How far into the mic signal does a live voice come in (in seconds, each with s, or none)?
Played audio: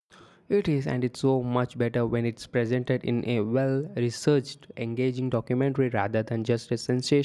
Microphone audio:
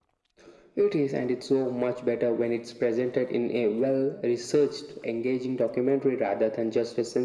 none